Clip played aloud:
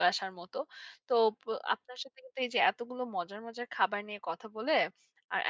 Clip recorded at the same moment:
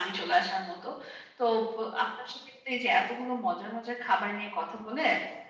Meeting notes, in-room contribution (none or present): none